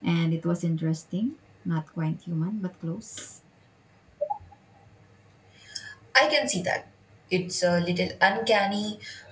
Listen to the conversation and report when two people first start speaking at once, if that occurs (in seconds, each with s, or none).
none